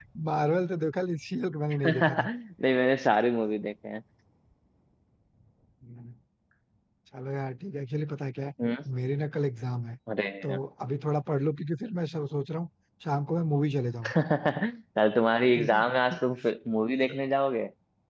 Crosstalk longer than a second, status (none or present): none